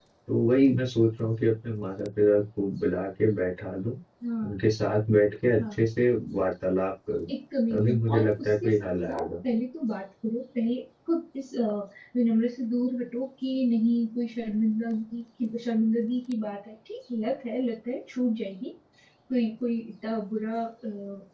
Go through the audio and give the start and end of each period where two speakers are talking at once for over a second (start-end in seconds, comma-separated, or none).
7.7-9.3